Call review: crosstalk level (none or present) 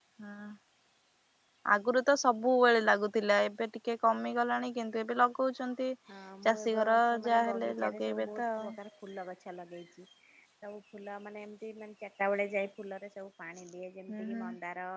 present